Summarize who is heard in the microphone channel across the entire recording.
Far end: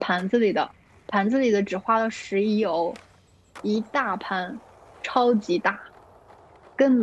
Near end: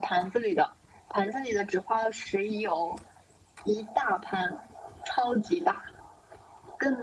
echo only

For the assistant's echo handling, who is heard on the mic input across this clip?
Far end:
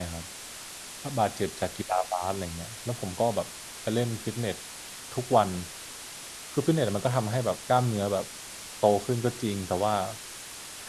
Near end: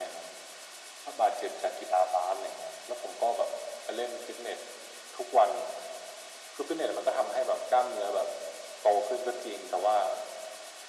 echo only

